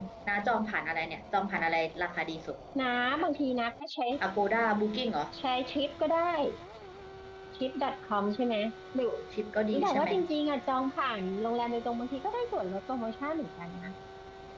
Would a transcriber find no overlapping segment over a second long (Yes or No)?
Yes